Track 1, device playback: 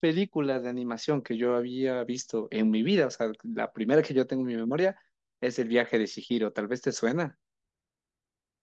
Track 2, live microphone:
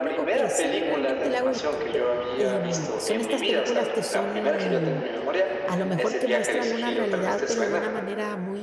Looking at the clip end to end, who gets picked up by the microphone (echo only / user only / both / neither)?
both